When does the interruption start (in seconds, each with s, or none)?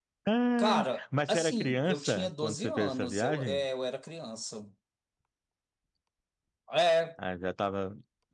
0.6 s